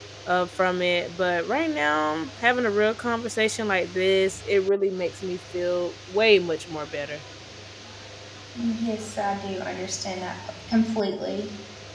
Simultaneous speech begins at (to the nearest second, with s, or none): none